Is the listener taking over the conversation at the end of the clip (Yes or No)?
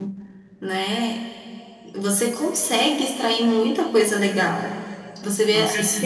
No